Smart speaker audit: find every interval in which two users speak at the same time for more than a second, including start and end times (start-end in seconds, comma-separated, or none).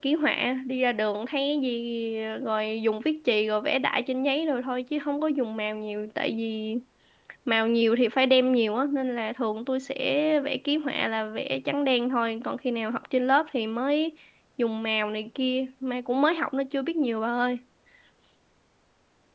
none